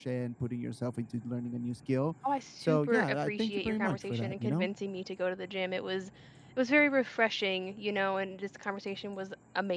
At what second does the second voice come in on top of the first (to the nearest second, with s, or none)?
3 s